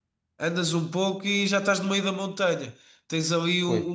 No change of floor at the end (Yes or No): Yes